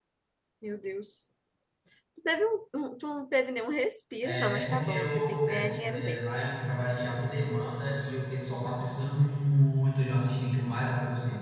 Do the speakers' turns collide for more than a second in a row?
Yes, from 4.2 s

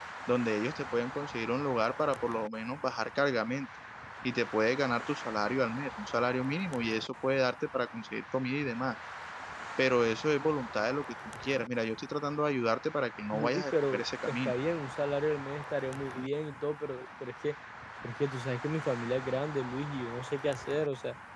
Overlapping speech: Yes, from 13.3 s

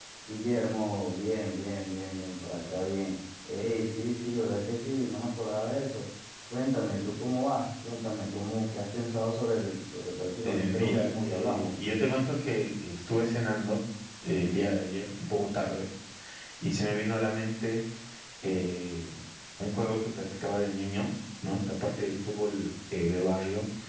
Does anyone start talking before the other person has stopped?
Yes, from 10.4 s

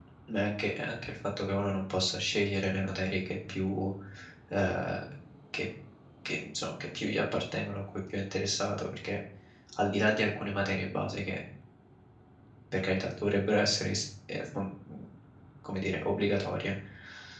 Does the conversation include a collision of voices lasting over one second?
No

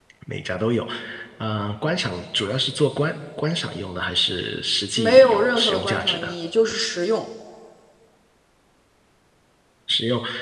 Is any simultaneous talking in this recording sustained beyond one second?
Yes, from 5.0 s

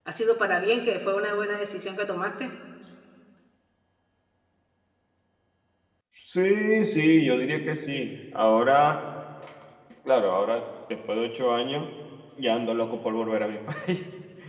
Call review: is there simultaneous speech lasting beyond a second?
No

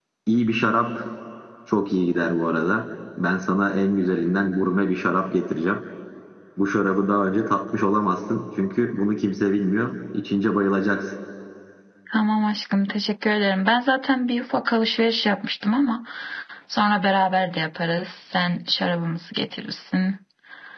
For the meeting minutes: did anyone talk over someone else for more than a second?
No

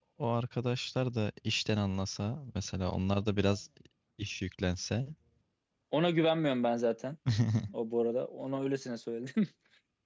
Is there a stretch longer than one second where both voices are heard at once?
No

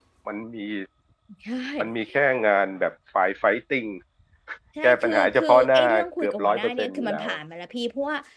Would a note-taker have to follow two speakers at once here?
Yes, from 4.8 s

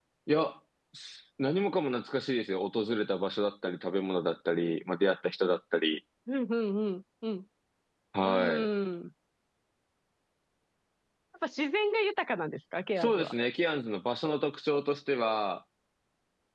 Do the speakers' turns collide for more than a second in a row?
No

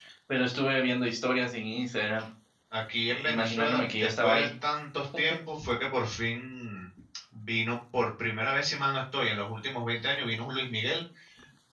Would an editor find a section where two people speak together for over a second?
Yes, from 3.1 s

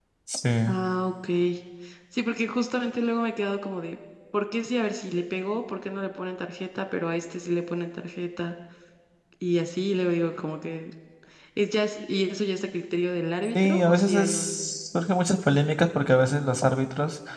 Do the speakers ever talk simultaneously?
Yes, from 13.6 s

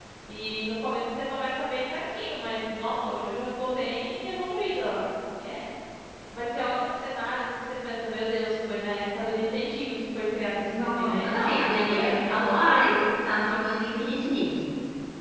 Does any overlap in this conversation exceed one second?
Yes, from 10.7 s

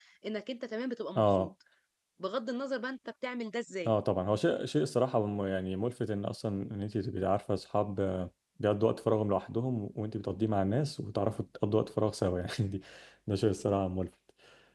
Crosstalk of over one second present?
No

